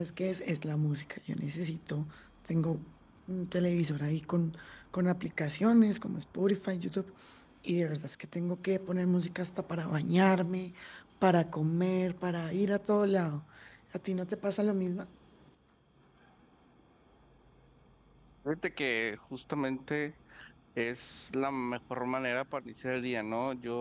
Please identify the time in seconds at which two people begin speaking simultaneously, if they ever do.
none

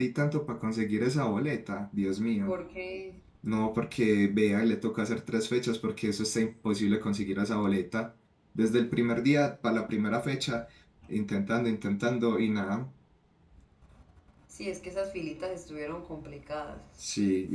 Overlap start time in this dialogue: none

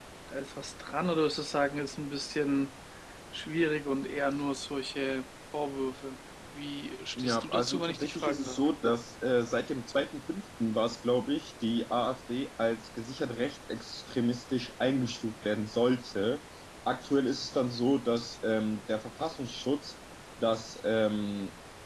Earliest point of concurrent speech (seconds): 7 s

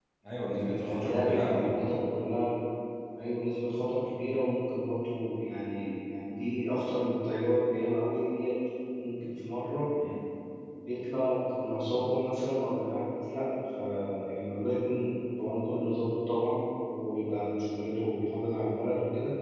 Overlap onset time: 1 s

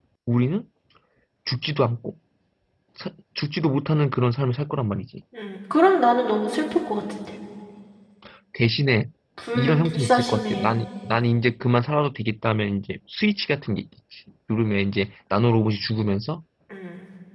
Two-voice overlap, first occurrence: 10 s

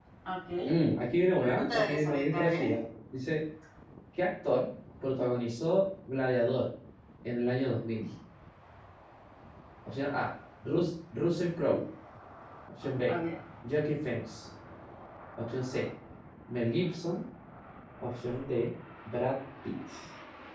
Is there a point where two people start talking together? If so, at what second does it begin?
1 s

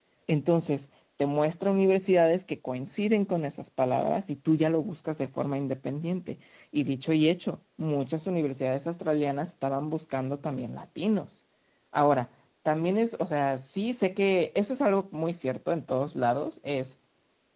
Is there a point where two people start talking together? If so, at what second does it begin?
none

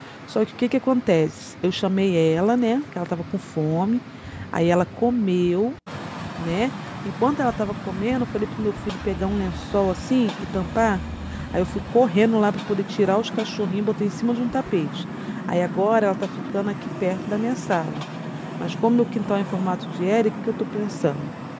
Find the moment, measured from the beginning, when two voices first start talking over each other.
none

